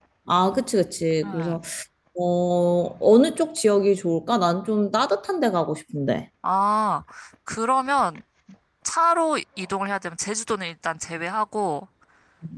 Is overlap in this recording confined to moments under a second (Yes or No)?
Yes